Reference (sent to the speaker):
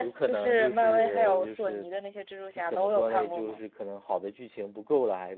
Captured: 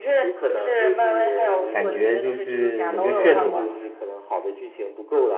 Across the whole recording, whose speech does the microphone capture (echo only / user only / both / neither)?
both